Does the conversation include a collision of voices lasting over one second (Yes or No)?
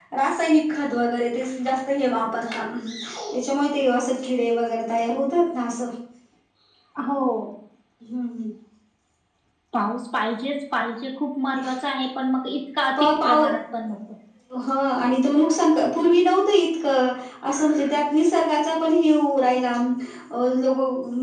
No